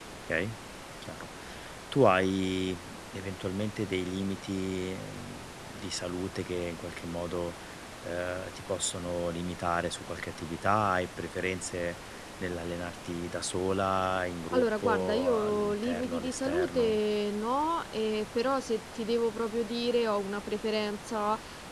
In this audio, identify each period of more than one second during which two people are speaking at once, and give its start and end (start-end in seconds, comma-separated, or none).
14.5-17.0